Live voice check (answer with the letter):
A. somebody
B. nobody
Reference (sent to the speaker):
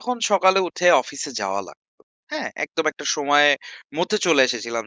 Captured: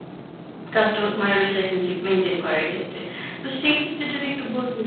A